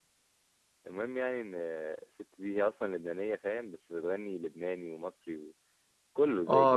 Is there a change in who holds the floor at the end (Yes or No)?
No